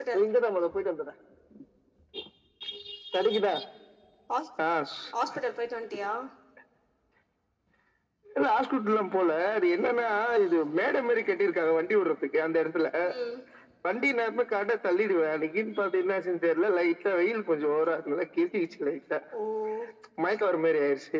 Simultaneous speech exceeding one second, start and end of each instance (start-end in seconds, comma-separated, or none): none